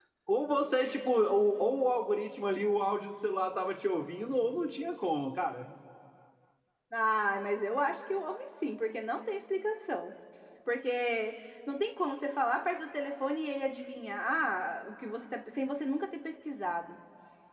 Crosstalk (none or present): none